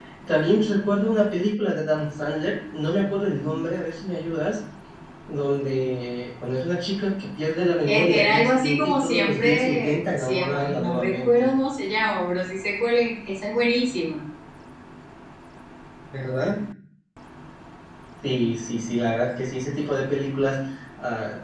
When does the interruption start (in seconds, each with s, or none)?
7.8 s